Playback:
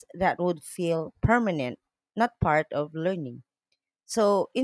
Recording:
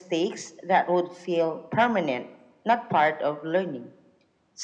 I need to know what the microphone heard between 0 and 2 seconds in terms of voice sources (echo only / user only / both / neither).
echo only